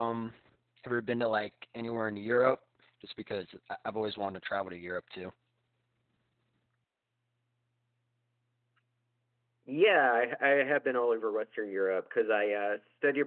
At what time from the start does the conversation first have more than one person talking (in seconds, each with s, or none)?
none